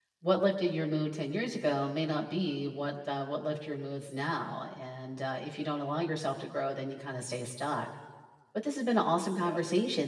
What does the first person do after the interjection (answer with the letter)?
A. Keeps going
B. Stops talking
A